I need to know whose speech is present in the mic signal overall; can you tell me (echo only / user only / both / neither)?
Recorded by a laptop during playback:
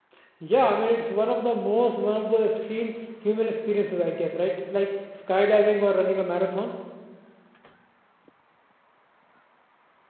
user only